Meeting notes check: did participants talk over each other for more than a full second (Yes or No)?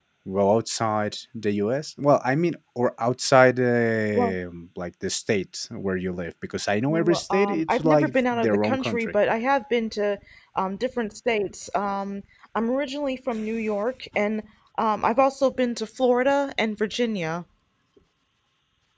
Yes